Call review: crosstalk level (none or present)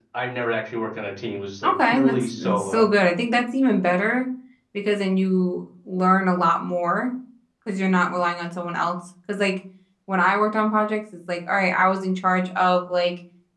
present